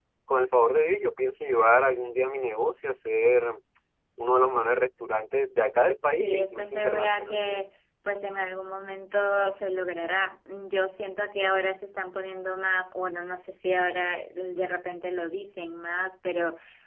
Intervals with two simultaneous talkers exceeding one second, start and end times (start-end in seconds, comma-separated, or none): 6.1-7.7